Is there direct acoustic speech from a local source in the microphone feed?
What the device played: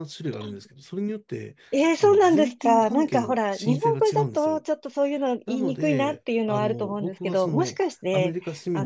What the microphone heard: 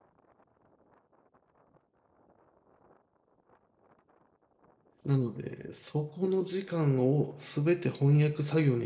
Yes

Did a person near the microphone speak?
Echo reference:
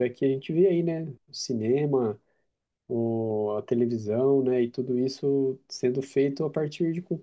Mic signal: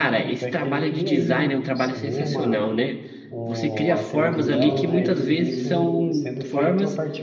Yes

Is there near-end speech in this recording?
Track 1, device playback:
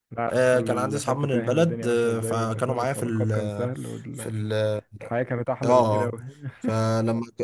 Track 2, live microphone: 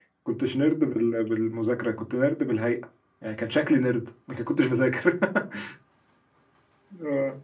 Yes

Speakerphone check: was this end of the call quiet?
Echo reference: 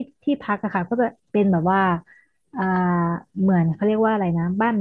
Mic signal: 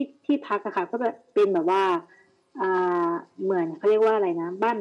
Yes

